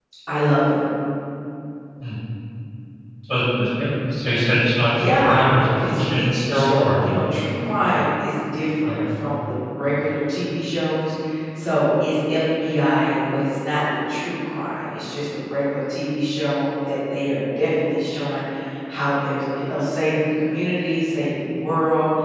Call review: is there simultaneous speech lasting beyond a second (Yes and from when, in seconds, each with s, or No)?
Yes, from 4.8 s